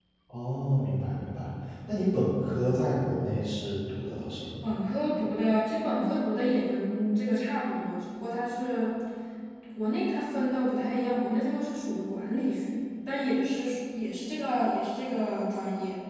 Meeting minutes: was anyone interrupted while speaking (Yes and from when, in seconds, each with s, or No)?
No